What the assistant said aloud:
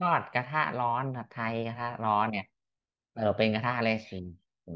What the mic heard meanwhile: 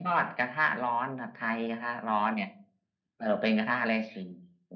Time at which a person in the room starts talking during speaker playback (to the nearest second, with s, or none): none